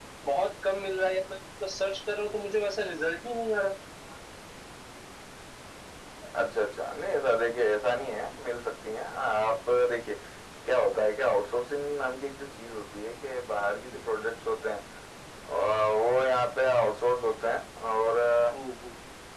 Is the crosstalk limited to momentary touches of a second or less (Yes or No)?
Yes